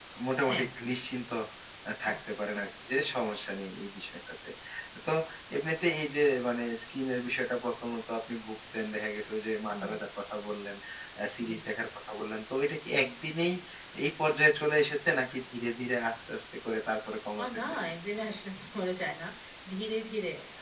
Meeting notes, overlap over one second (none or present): none